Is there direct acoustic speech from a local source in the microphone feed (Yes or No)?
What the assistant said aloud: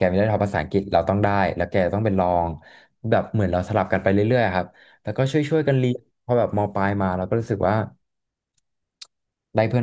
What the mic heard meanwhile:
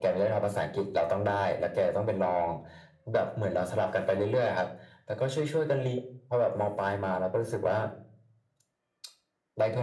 No